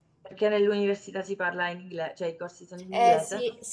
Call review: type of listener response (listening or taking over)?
taking over